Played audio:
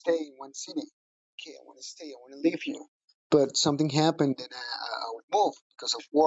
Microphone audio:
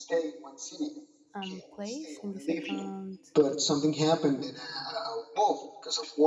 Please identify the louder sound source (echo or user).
echo